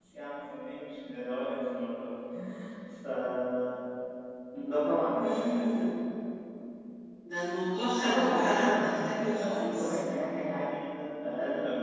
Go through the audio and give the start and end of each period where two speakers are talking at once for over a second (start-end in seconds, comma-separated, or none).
8.0-10.0